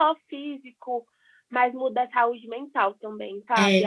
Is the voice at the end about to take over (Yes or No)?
No